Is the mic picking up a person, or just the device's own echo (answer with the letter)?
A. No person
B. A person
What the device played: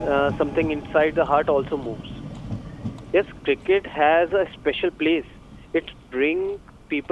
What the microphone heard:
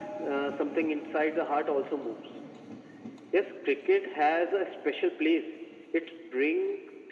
A